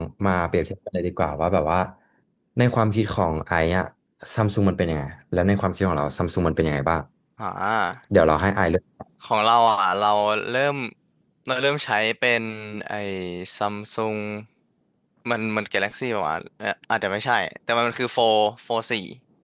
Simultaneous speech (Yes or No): No